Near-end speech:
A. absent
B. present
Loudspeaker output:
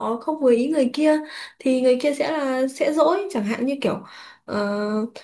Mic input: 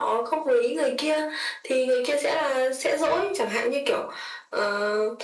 A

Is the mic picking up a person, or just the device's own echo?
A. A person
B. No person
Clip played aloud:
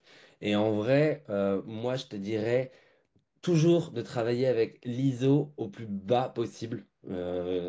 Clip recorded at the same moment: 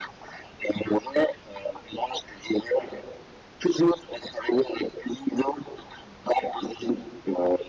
B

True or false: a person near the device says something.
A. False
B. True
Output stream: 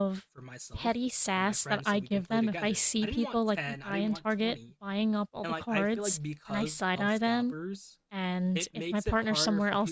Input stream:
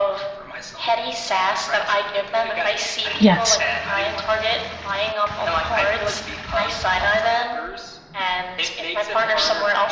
B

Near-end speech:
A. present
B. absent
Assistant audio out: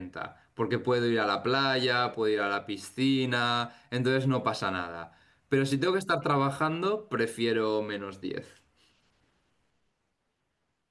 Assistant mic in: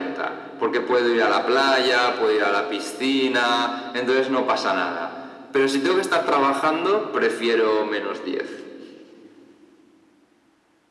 B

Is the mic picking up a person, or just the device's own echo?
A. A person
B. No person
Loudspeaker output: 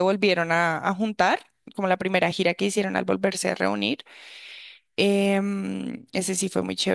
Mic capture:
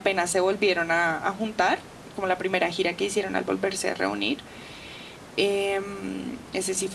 B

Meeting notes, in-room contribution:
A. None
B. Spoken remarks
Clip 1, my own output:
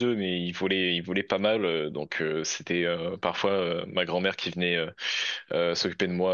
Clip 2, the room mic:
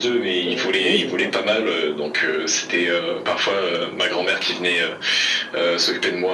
B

